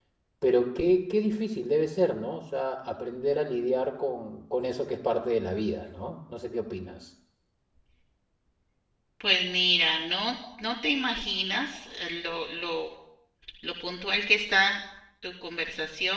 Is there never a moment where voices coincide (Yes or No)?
Yes